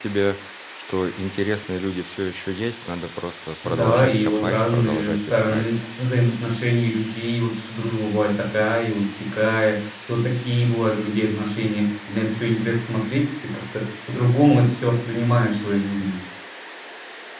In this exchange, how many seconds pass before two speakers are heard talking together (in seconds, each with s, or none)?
3.6 s